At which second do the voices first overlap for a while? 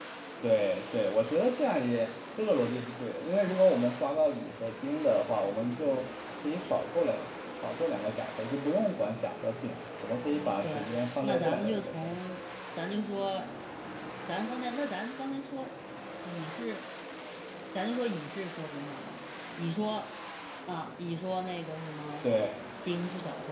10.6 s

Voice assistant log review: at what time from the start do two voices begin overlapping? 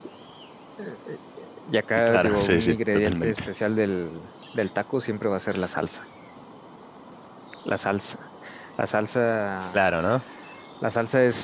2.0 s

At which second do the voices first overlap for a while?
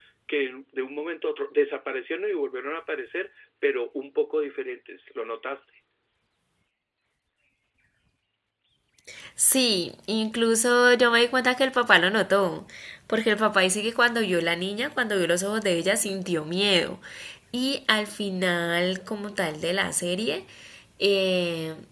none

